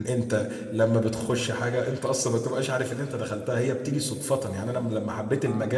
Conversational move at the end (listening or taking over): listening